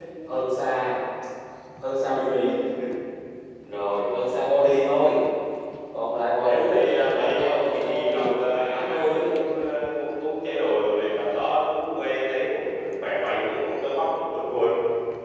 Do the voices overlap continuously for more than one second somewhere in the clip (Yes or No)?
Yes